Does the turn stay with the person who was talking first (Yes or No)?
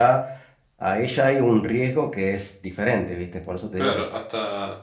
No